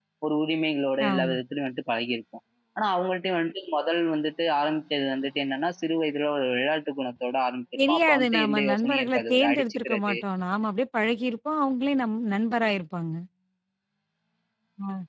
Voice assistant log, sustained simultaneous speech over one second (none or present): present